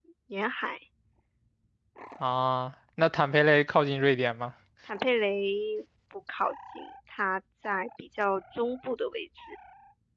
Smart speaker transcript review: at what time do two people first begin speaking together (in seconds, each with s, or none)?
none